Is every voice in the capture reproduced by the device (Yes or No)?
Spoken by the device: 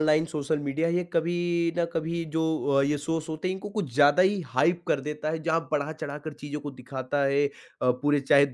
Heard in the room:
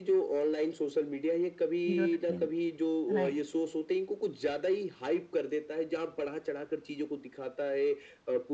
No